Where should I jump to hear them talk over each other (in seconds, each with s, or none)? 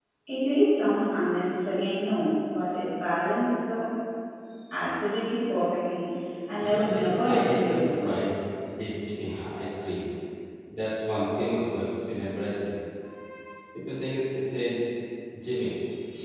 6.6 s